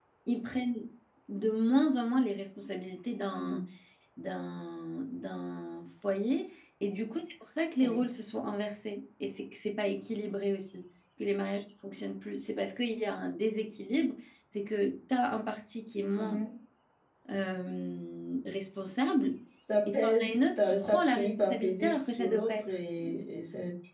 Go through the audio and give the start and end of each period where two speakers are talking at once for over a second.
19.9-22.7

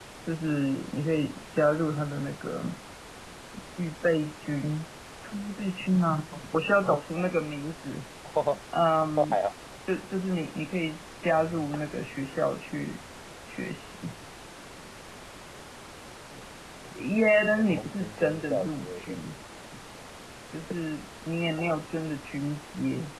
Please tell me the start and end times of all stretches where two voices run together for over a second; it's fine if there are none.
17.5-19.2

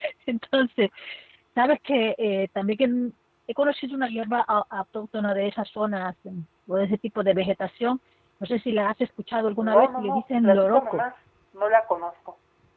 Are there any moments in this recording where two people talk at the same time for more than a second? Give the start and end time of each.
9.8-11.0

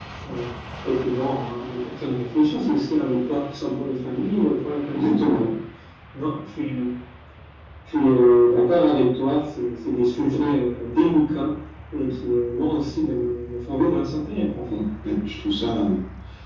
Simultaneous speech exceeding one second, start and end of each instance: none

